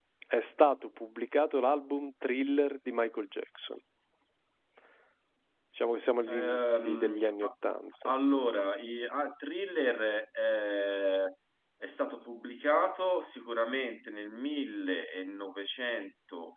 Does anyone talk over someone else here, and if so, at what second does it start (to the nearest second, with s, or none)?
6 s